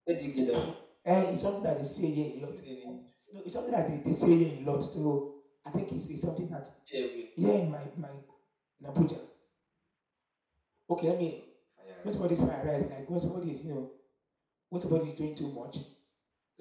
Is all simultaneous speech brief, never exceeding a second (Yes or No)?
Yes